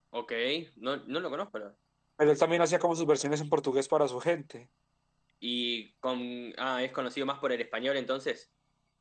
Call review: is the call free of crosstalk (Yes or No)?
Yes